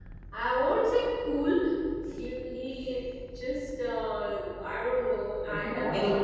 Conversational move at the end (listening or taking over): taking over